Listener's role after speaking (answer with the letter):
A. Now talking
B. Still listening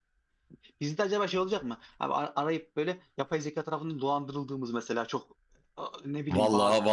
A